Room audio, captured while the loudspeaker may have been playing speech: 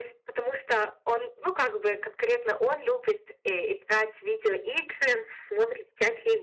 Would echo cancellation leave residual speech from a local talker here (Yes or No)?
No